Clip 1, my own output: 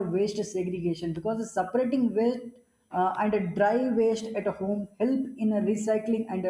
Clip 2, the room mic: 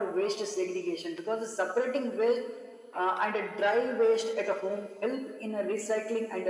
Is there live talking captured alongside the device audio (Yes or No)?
No